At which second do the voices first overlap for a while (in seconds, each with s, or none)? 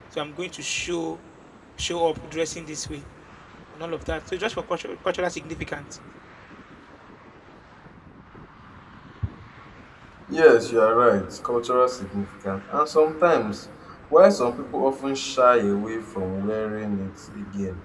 none